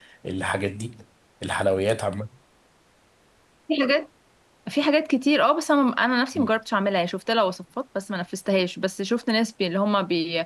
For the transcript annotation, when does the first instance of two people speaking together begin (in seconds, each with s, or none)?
none